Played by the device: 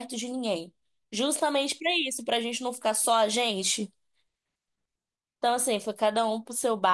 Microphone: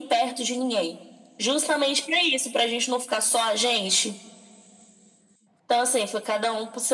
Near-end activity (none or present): none